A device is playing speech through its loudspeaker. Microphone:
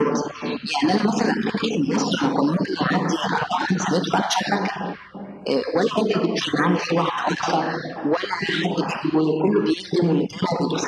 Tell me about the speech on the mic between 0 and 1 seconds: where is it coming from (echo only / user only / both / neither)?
echo only